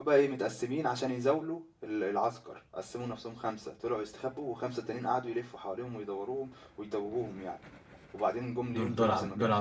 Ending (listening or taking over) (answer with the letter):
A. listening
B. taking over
B